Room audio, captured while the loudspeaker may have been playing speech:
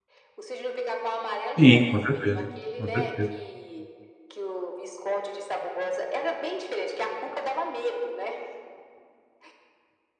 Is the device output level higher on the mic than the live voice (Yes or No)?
No